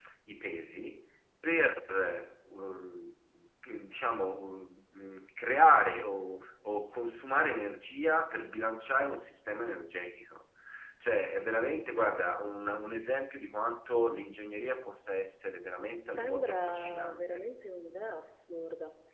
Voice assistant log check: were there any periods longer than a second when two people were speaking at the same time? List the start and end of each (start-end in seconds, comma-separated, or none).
16.0-17.4